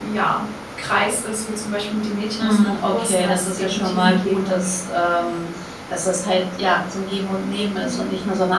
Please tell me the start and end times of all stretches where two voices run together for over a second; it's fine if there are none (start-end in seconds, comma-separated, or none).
2.4-4.9